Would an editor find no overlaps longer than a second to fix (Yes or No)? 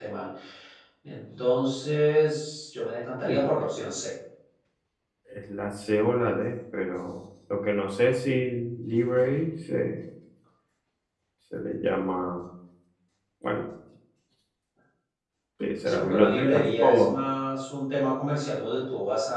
No